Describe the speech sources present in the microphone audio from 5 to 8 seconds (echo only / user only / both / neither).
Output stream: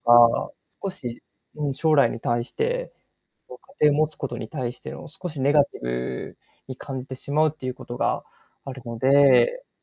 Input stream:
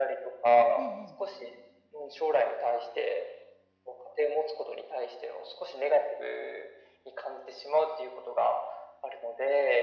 echo only